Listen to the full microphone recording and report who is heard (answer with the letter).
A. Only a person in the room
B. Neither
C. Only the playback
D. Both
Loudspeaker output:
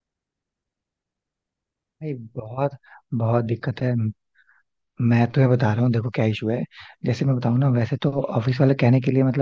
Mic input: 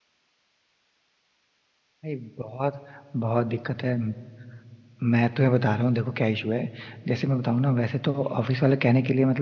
C